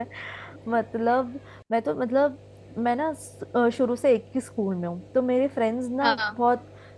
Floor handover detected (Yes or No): No